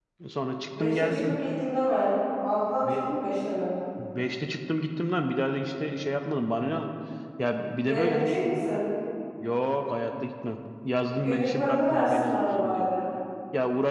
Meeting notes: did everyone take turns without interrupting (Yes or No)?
No